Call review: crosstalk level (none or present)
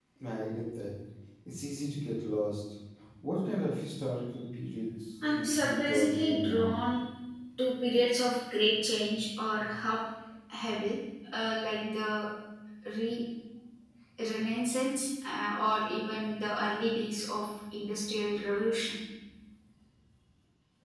present